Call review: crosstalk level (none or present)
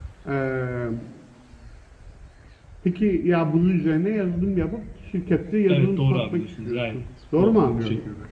present